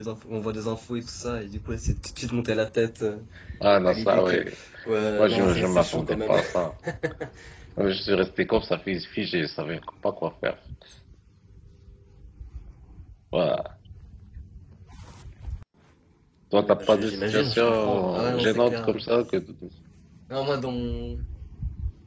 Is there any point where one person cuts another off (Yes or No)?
Yes